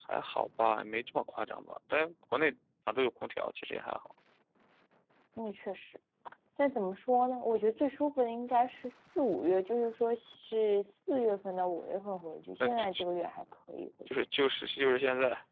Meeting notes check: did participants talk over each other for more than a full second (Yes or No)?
No